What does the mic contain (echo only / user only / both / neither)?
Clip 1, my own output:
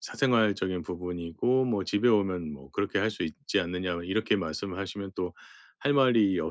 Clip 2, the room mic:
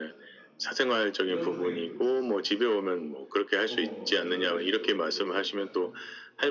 both